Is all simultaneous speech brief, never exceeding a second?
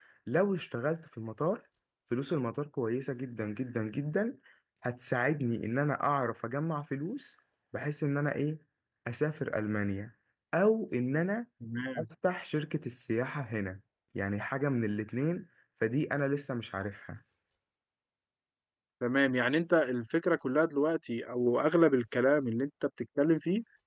Yes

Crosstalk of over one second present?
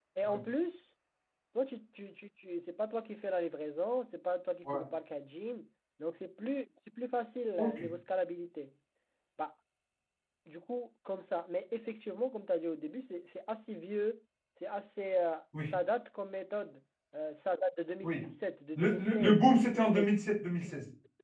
Yes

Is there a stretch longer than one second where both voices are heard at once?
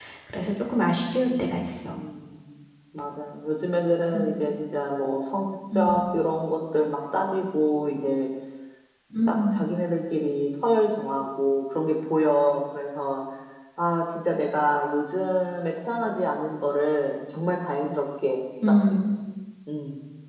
No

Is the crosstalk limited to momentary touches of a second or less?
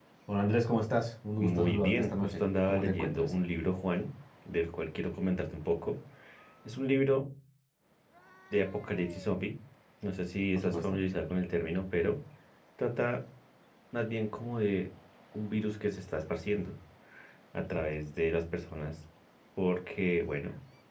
No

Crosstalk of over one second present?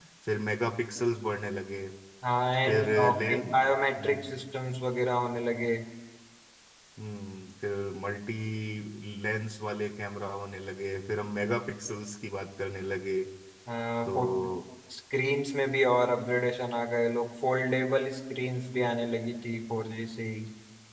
Yes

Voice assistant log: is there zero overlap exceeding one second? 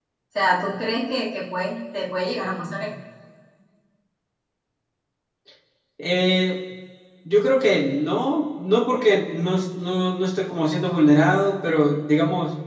Yes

